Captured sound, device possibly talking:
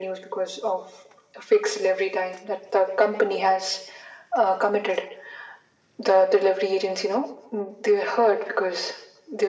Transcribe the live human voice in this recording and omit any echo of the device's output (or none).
none